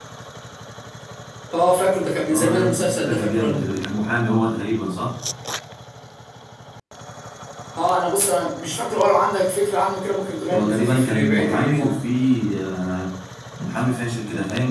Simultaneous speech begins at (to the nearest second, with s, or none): 2 s